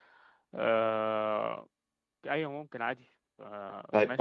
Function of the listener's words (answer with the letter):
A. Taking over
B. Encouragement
A